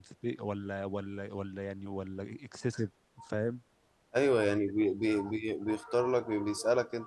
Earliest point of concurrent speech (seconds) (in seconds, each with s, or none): none